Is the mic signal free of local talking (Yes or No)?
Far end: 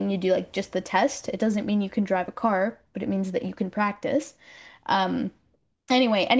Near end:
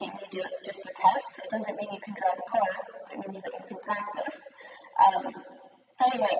Yes